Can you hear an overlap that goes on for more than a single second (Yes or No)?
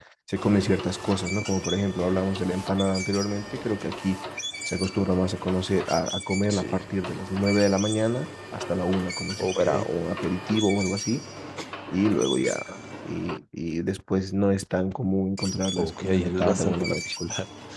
Yes